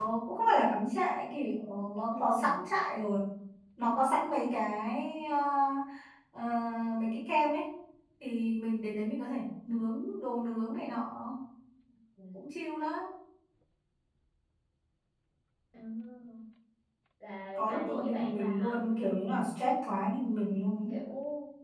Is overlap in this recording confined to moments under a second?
No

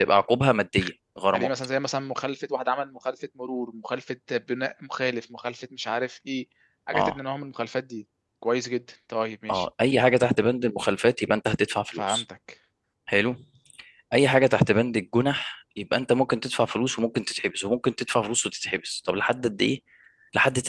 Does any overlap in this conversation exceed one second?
No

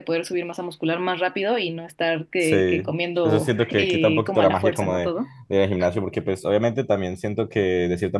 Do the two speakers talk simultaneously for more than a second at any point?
Yes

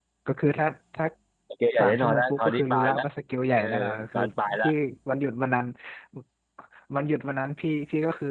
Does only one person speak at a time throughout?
No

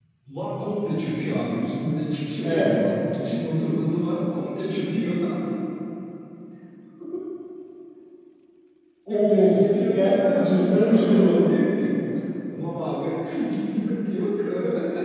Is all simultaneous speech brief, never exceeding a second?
No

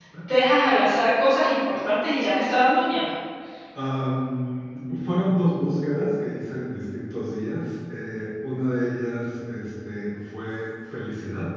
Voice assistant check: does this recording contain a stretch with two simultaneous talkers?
No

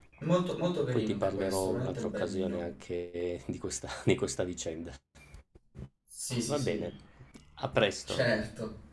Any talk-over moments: Yes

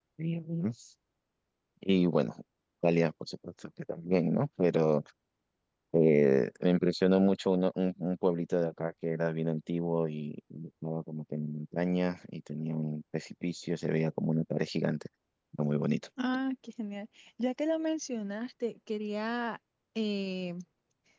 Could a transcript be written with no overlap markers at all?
Yes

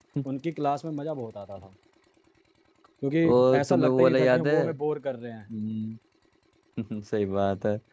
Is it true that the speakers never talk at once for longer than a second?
No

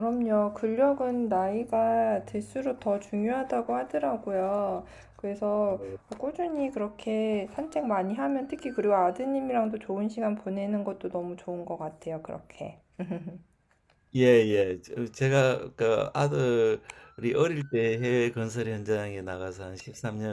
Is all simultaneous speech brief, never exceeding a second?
Yes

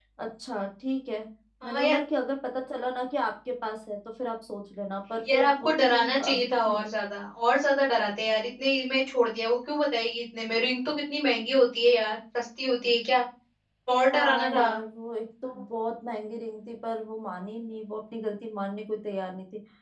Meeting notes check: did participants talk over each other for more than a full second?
Yes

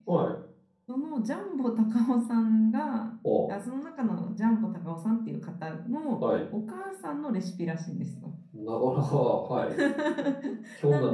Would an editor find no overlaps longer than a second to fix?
Yes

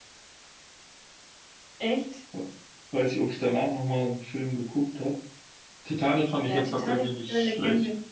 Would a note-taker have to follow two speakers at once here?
Yes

